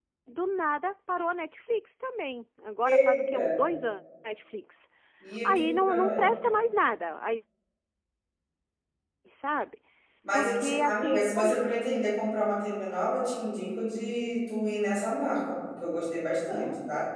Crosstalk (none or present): present